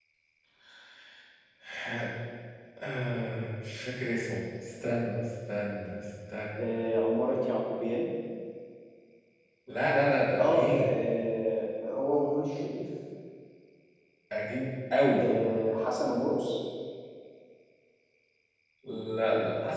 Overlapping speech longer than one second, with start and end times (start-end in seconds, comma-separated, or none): none